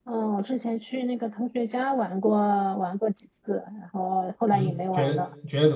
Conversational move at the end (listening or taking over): taking over